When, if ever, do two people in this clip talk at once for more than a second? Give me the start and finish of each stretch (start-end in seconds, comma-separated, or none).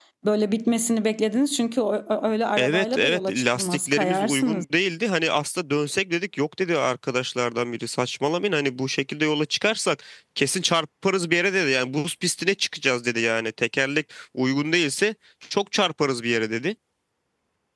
2.6-4.6